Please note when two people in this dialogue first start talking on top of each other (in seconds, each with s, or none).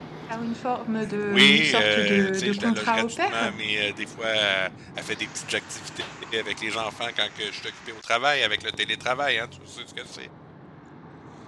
1.2 s